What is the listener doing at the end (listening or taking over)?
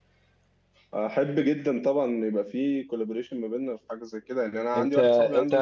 taking over